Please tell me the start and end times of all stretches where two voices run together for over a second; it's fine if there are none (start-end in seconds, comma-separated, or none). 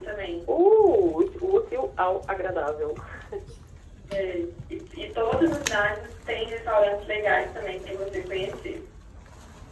none